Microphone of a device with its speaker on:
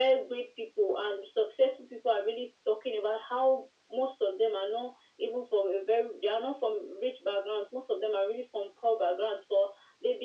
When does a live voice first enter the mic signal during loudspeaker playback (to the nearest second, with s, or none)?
none